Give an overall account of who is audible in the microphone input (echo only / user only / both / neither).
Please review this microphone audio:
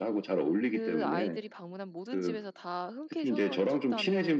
both